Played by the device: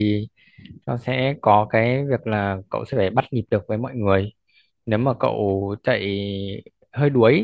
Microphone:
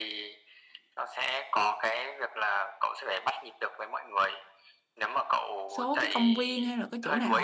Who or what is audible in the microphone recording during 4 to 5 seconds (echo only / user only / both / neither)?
echo only